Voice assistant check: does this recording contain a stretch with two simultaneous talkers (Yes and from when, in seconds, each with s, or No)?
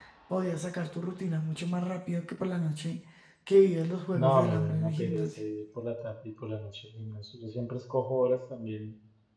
Yes, from 4.1 s